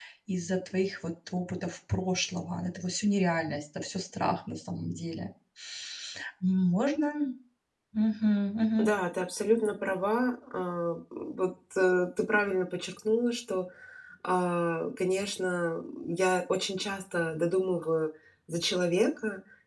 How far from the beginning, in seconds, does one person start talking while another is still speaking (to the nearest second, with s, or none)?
none